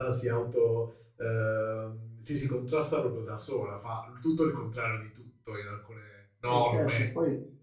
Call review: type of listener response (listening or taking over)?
taking over